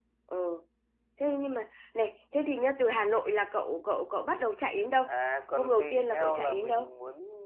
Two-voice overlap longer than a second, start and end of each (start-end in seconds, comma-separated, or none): 5.6-6.9